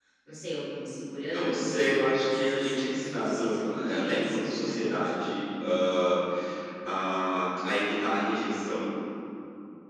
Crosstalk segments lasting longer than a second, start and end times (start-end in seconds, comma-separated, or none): 1.3-5.1